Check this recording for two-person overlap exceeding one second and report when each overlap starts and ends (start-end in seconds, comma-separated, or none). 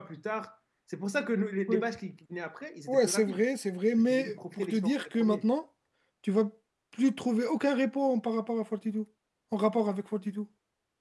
4.1-5.4